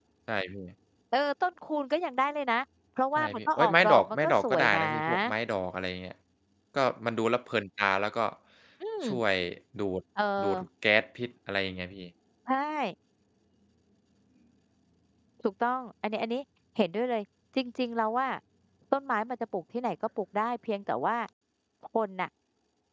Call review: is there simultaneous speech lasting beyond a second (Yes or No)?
Yes